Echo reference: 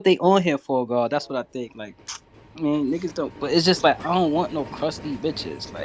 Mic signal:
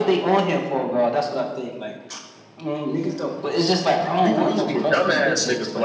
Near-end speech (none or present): present